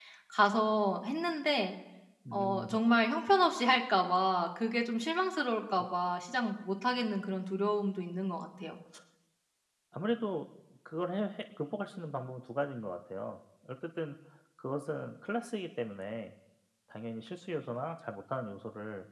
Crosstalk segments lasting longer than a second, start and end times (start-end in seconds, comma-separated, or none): none